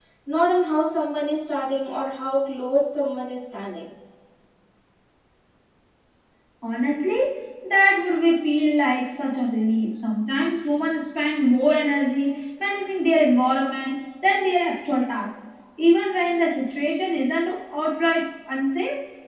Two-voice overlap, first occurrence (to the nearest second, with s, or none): none